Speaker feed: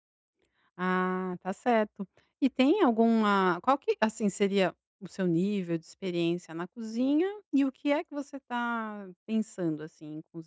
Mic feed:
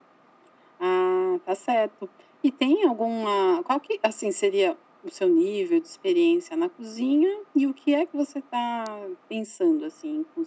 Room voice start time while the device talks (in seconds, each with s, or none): none